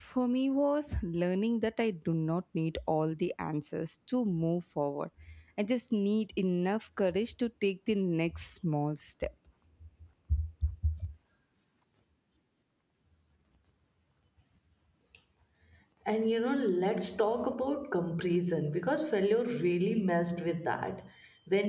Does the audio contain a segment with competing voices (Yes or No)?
No